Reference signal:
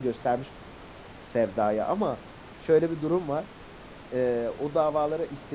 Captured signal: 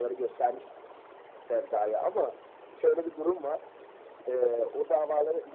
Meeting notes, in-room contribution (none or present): none